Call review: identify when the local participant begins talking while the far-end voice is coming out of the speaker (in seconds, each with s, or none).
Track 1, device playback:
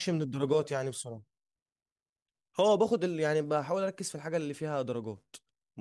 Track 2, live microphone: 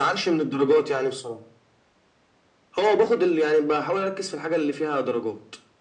none